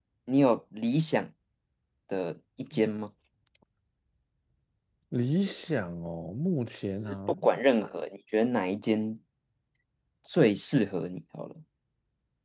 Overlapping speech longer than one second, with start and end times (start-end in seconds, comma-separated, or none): none